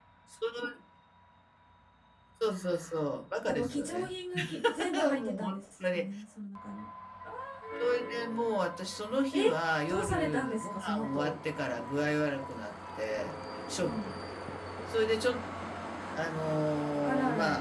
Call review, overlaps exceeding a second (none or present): present